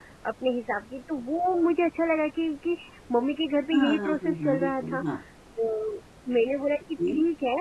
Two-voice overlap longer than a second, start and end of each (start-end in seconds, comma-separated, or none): 3.7-5.0